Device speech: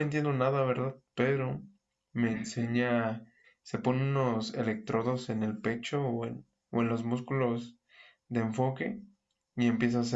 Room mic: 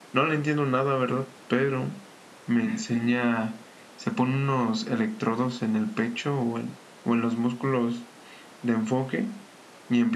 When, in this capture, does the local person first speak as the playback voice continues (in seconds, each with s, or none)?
none